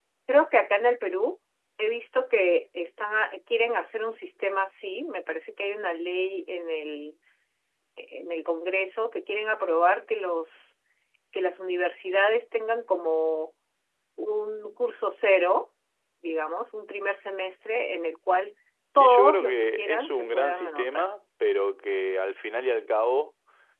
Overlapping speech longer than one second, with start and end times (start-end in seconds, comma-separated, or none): 19.0-21.1